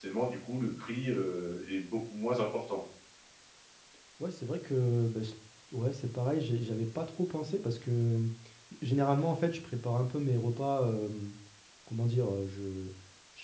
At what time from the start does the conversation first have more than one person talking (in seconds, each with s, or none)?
none